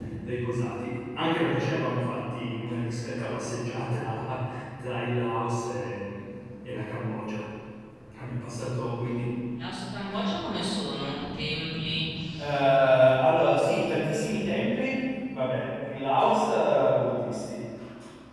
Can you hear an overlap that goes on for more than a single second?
No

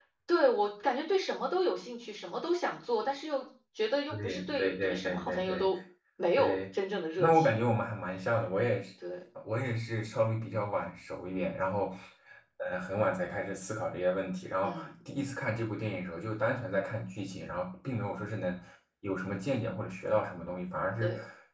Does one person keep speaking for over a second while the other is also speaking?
Yes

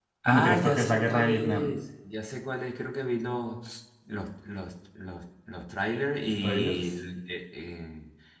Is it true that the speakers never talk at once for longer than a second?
No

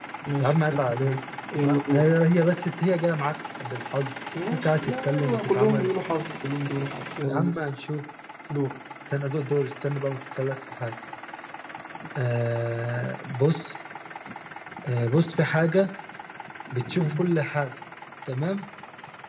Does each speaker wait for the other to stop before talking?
No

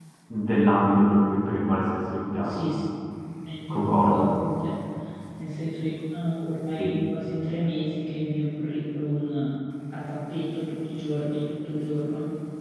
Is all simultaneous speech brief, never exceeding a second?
Yes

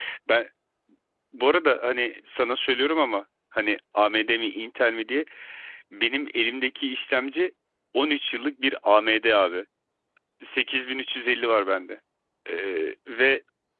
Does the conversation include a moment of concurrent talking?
No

